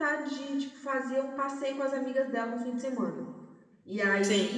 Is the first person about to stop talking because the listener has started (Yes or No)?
No